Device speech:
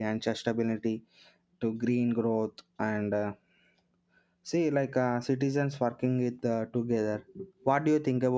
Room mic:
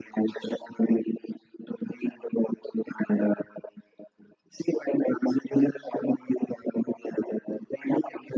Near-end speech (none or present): none